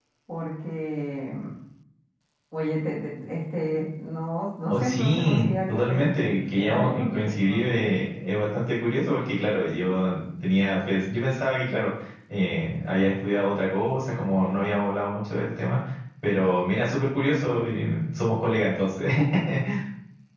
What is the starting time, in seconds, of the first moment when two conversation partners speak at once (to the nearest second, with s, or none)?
5 s